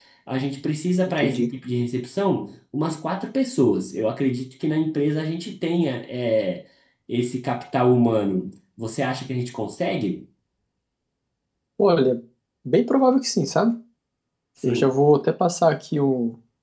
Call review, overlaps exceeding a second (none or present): none